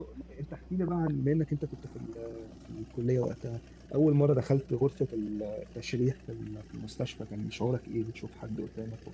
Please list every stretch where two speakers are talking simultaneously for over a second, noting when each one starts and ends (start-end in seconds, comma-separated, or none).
none